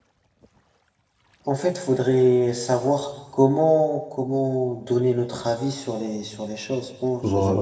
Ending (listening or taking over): taking over